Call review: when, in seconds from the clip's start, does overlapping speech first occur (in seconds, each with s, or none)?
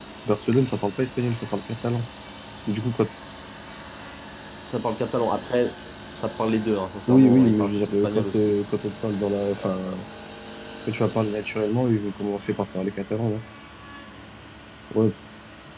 7.1 s